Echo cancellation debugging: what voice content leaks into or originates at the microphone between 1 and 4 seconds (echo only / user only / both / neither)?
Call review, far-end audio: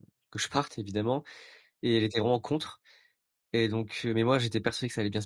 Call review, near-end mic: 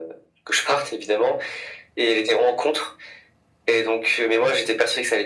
echo only